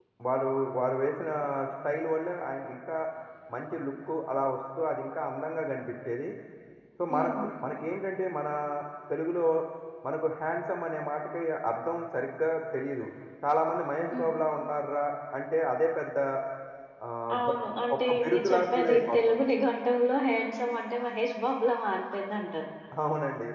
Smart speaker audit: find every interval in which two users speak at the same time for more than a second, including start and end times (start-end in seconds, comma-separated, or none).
17.9-19.2